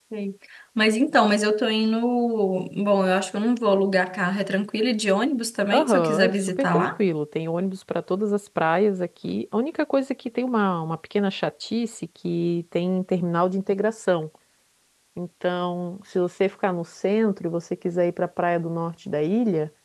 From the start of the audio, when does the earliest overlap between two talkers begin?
6 s

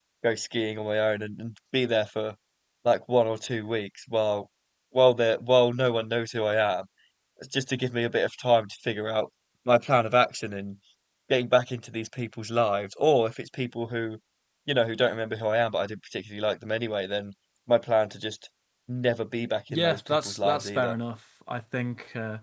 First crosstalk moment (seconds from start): 20 s

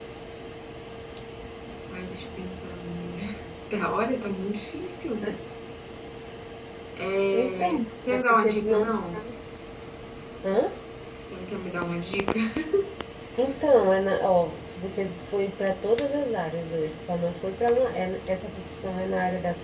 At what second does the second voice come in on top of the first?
7 s

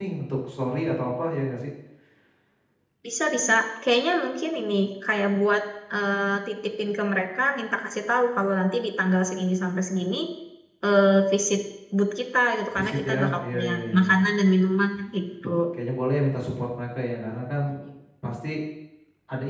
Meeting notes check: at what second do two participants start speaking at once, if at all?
13 s

